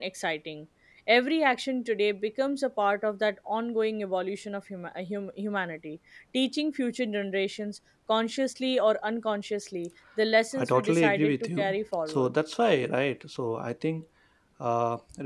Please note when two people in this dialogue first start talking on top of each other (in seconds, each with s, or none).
10.6 s